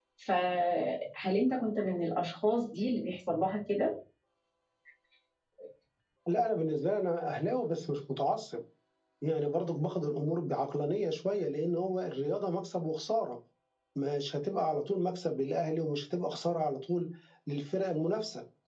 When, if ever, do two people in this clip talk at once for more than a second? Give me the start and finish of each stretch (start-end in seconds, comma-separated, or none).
none